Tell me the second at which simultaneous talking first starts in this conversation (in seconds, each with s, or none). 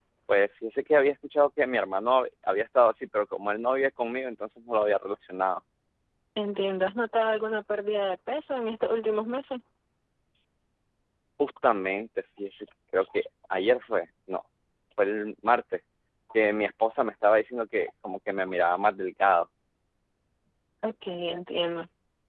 none